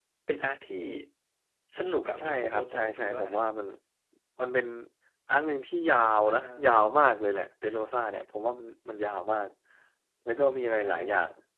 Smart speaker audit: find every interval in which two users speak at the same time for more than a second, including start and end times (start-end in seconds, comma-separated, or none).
2.2-3.4